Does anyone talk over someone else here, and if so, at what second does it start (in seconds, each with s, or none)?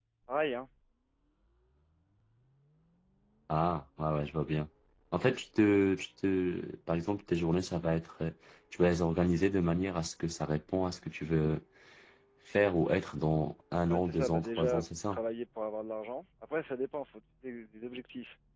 13.9 s